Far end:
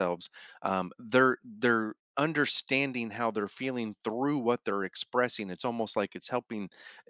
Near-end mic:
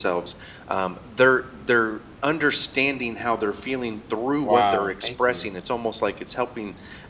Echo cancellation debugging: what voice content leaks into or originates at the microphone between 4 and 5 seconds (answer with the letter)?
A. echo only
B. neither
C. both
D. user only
C